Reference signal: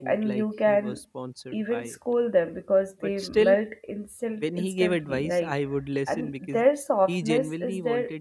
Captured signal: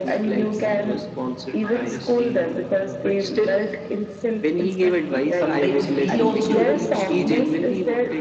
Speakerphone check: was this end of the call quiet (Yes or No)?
No